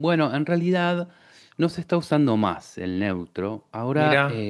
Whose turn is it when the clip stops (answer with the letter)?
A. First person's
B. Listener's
A